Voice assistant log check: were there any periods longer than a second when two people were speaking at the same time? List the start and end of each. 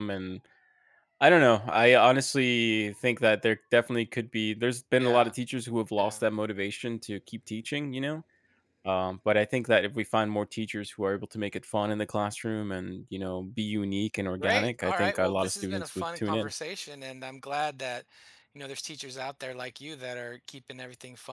14.4-16.5

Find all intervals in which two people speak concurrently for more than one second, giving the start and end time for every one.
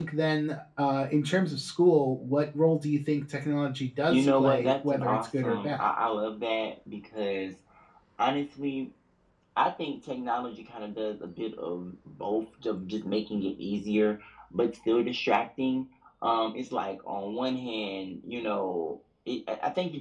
4.1-5.9

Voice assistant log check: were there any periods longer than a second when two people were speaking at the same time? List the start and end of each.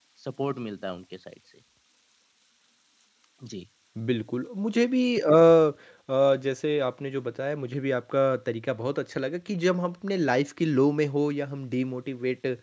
none

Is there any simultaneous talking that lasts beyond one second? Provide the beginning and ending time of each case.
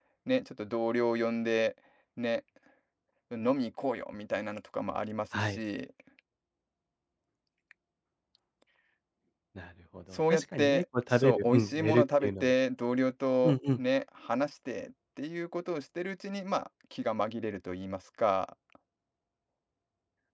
10.3-12.5

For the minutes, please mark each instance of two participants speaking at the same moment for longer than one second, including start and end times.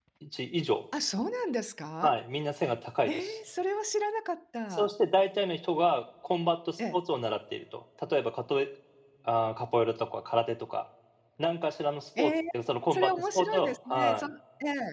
12.9-14.2

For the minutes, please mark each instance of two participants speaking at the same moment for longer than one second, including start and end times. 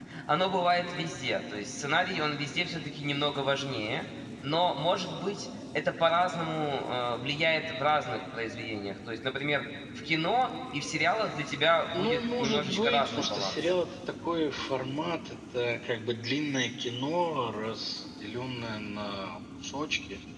11.9-13.6

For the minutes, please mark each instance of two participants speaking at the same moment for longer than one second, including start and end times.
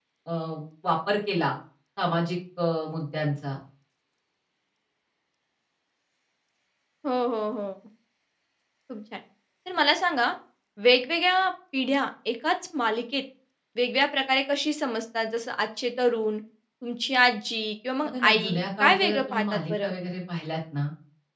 18.0-19.9

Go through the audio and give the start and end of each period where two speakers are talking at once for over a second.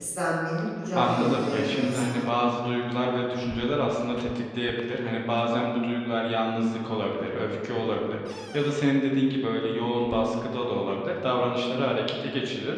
0.9-2.2

